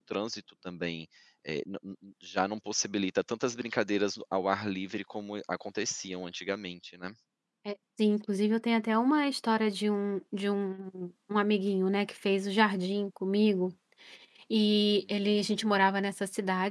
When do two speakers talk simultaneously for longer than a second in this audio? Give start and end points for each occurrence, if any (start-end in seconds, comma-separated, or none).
none